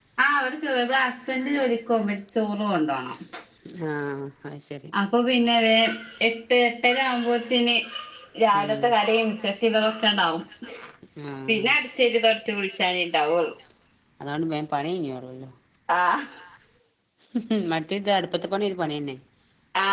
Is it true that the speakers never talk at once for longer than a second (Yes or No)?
Yes